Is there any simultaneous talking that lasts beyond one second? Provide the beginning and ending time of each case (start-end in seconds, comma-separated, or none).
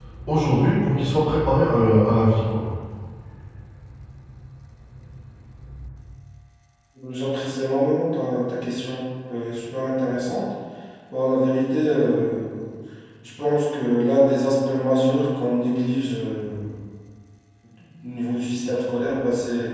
none